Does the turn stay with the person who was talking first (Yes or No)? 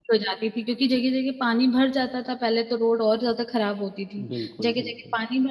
Yes